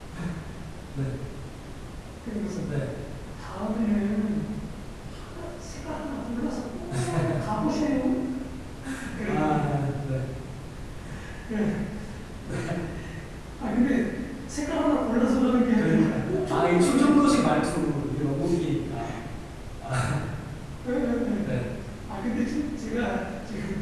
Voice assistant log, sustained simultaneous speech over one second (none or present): present